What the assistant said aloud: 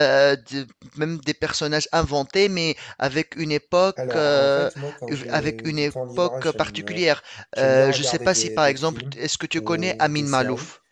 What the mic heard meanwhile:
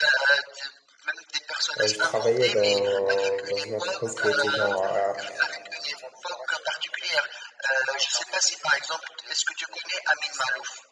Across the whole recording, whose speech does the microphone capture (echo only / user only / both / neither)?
both